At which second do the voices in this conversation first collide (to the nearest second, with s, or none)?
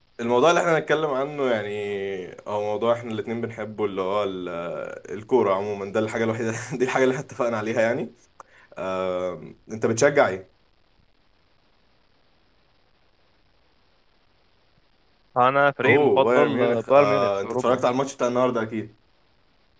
16 s